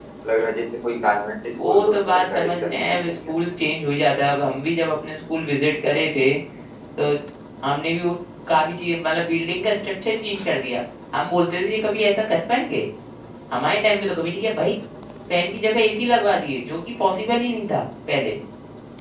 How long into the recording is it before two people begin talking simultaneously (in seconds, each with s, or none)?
1.6 s